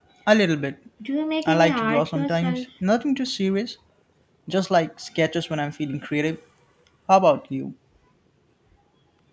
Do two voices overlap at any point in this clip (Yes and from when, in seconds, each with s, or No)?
Yes, from 1.4 s